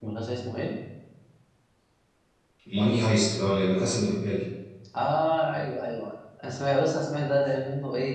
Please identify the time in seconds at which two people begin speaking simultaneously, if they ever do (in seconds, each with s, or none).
none